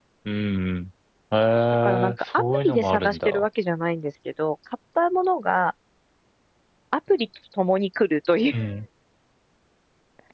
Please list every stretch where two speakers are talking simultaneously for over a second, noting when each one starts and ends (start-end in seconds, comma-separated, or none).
1.8-3.4